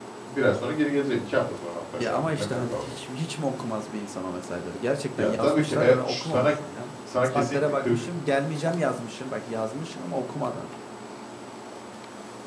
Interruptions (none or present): present